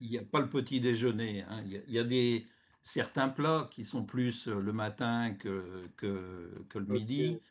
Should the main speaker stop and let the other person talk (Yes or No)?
Yes